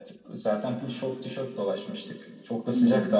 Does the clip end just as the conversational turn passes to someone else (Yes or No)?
No